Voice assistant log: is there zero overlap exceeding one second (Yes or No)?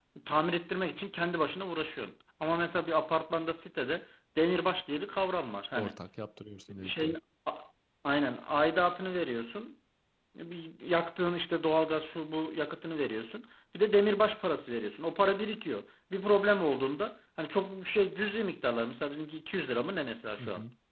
Yes